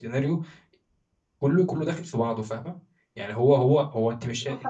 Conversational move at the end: taking over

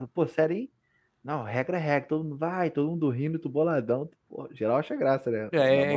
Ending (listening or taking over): taking over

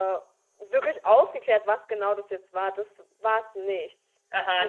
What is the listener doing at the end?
taking over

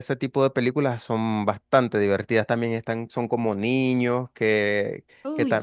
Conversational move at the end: listening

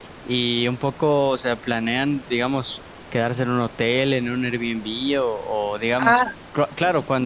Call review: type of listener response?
listening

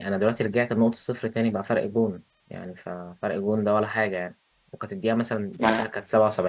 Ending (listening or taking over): listening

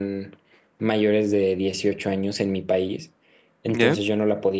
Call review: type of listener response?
listening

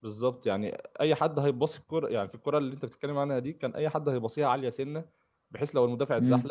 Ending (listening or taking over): listening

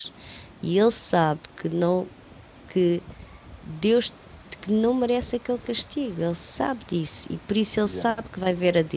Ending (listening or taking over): listening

